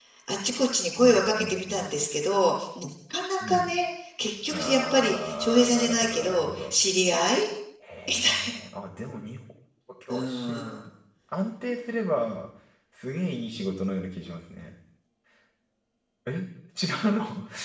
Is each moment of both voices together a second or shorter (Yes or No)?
No